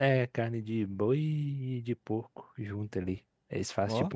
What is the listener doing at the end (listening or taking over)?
listening